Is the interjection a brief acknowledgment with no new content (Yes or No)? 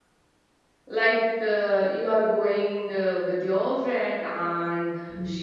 Yes